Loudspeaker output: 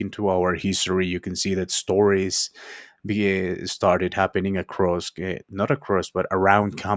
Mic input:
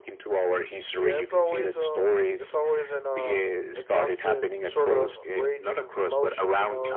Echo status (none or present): present